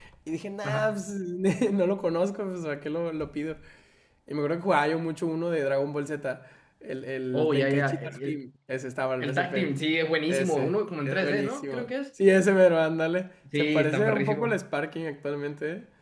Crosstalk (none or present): present